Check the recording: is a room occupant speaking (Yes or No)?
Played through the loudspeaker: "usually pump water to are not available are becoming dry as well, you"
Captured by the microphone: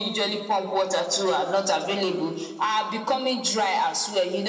No